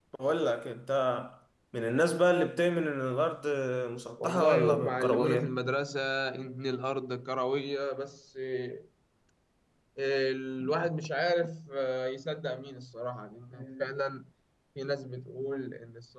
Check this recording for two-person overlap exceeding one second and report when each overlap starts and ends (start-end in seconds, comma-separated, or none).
4.2-5.5